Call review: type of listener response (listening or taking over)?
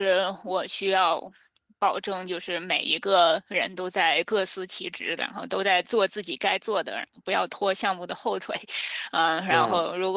listening